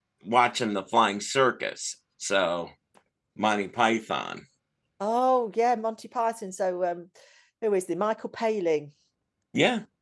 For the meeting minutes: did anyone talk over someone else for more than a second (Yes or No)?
No